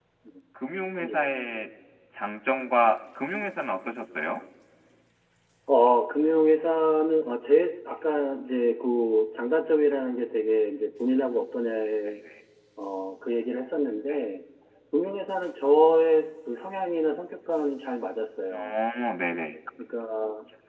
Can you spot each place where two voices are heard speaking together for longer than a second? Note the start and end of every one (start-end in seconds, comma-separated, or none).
none